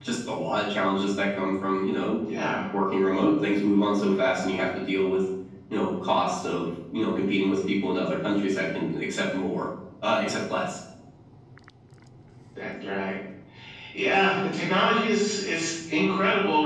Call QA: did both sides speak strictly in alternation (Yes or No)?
Yes